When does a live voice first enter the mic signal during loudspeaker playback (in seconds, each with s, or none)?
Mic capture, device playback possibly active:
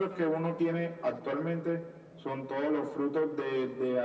none